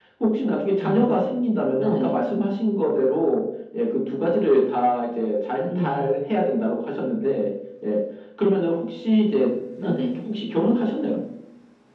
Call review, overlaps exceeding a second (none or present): none